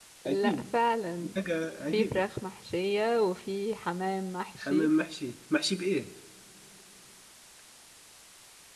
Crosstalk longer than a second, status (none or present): none